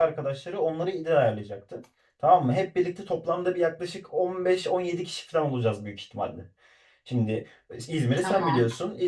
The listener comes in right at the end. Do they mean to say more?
No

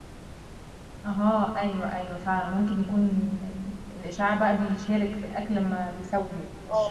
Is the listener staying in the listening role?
No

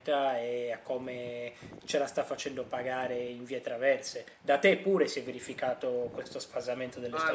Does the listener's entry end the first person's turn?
Yes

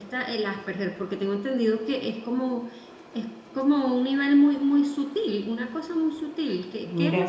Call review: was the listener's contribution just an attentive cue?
Yes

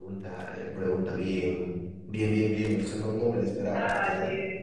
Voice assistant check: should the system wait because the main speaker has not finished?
No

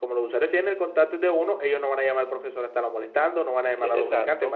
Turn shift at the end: Yes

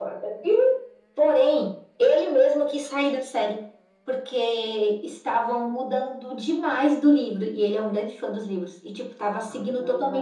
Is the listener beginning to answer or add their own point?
Yes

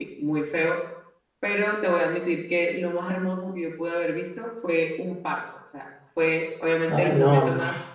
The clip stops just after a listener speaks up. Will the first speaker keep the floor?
Yes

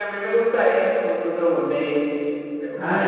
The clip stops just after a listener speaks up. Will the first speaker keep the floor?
No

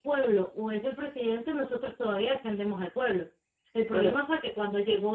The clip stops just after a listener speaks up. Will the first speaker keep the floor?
Yes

